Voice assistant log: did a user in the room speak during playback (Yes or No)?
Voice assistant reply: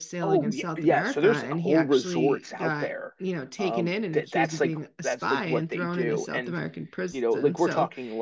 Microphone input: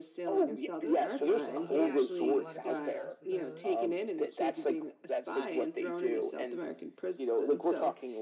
Yes